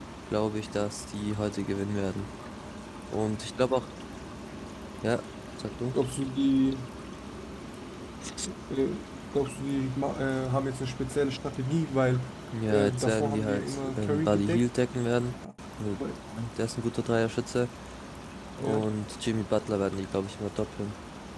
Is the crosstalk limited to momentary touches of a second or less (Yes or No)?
No